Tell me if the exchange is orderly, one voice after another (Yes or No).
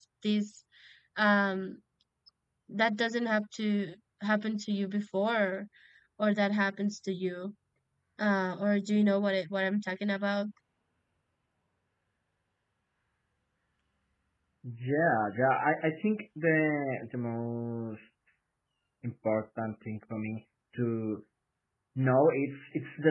Yes